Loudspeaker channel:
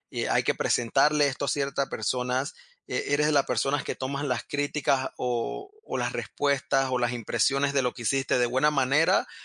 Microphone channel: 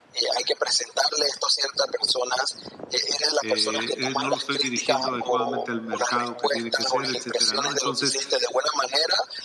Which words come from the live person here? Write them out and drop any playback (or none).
eh eh, no lo estoy dirigiendo adecuadamente al mercado que tiene que ser, etcétera, ¿no? Entonces,